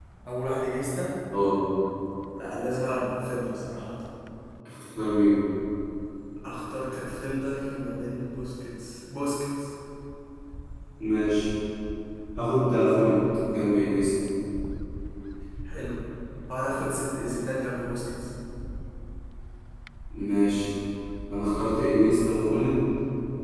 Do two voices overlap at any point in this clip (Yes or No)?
No